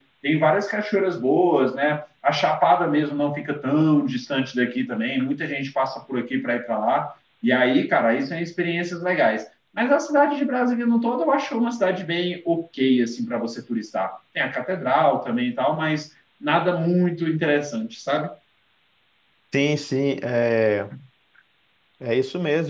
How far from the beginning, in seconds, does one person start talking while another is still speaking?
none

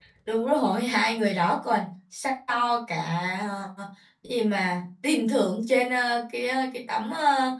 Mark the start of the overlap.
none

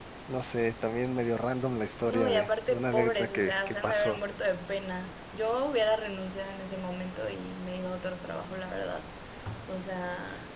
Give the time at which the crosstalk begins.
2.0 s

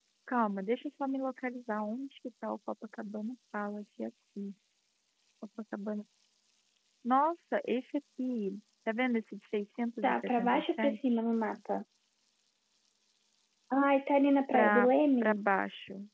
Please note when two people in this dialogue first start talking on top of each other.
10.0 s

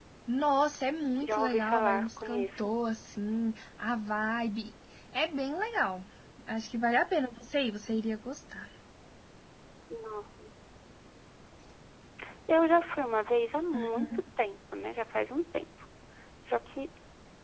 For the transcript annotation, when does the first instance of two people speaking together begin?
1.2 s

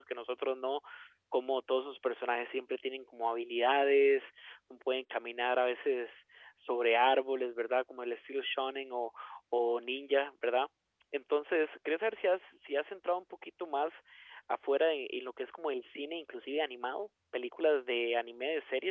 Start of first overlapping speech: none

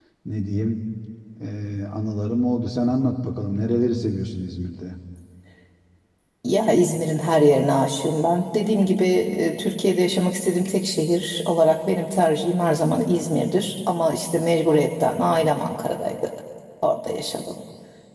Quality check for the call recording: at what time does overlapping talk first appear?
none

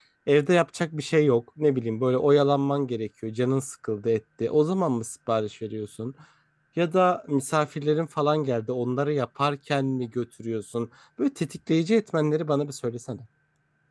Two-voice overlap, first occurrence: none

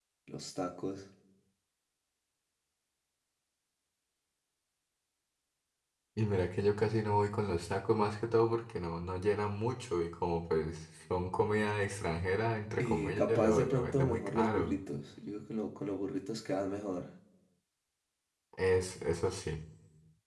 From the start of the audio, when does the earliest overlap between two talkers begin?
12.8 s

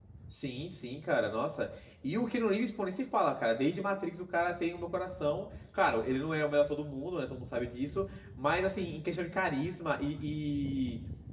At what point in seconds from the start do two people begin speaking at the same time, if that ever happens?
none

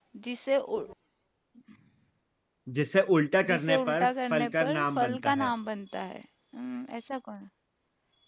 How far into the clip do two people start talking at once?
3.5 s

